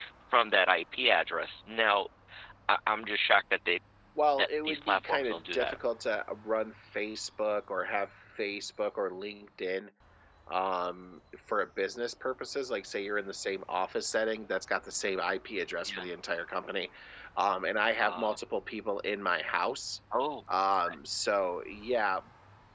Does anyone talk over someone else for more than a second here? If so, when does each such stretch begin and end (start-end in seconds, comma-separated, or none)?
4.4-5.8